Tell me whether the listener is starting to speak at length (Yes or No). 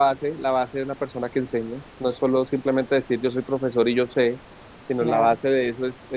No